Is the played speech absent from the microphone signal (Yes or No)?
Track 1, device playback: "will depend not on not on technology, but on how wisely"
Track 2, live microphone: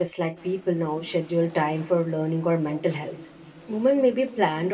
Yes